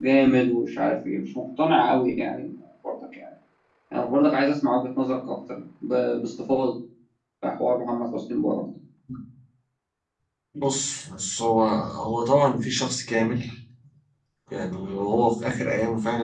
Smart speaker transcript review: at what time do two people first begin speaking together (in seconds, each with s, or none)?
none